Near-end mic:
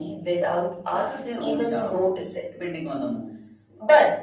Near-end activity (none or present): none